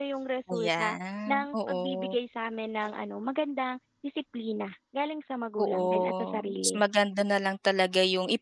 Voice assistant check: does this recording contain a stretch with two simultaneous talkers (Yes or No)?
Yes